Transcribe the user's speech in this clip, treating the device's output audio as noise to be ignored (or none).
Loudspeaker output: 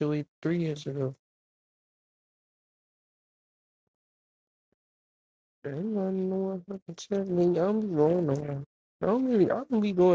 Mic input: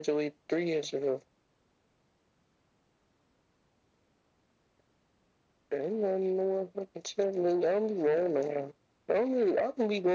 none